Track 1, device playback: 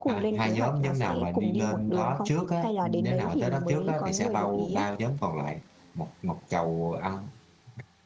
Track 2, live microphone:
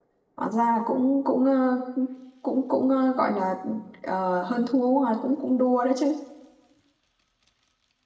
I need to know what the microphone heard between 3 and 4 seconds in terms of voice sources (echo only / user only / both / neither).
user only